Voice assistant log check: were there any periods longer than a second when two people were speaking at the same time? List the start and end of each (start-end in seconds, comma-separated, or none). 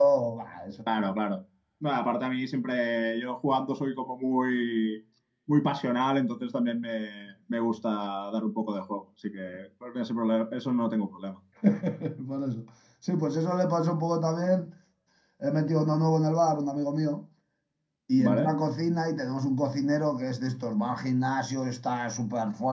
none